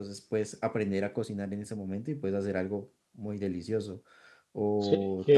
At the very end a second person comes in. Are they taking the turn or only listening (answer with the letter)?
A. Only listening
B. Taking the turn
B